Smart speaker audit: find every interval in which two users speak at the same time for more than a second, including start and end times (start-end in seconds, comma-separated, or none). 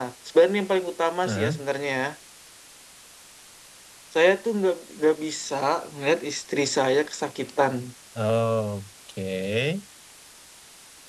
none